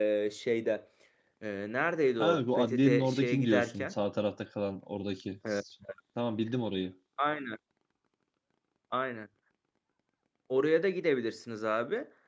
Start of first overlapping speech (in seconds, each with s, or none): 2.2 s